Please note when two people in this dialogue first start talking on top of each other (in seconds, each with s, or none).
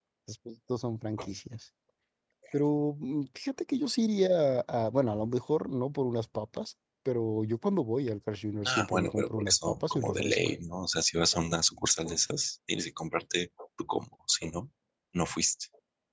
8.6 s